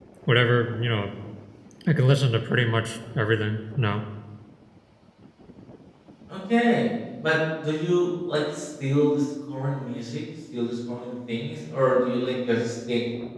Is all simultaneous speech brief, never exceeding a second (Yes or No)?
Yes